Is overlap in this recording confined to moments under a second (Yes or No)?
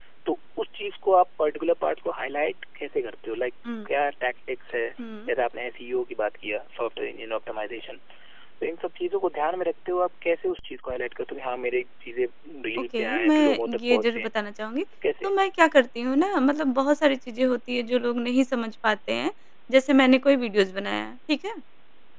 No